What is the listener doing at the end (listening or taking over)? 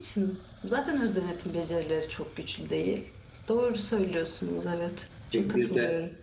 taking over